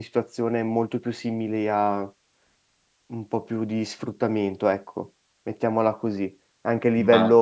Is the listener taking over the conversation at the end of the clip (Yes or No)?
No